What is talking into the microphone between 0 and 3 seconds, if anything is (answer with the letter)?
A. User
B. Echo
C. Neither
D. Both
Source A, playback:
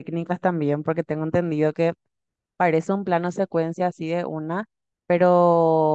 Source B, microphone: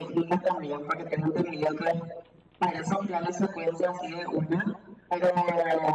B